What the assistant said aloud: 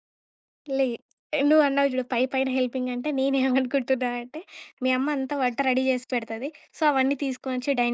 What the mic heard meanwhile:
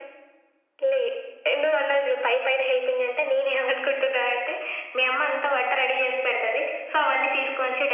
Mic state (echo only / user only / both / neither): echo only